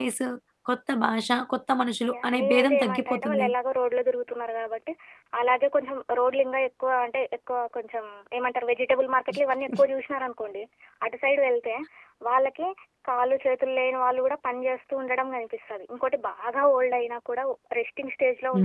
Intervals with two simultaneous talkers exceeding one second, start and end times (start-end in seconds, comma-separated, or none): 2.1-3.5